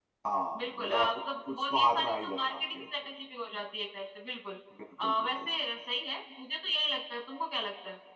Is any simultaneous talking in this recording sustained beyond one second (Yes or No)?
Yes